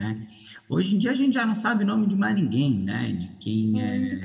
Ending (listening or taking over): listening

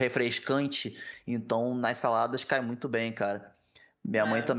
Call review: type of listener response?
listening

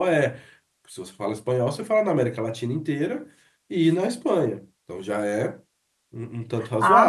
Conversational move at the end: taking over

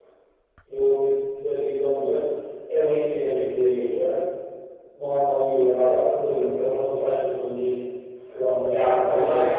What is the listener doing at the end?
taking over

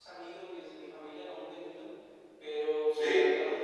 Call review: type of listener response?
listening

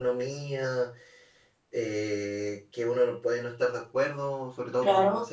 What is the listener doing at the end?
listening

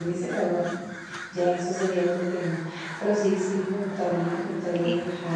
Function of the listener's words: listening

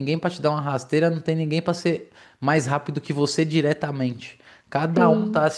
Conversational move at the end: listening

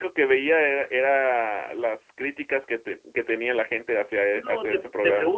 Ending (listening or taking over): taking over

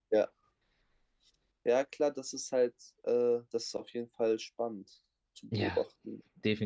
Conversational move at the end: taking over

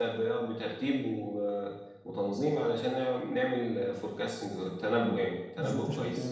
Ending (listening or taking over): taking over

